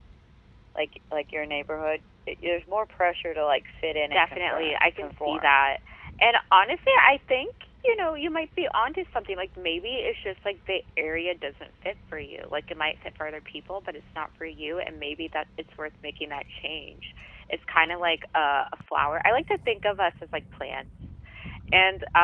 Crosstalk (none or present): present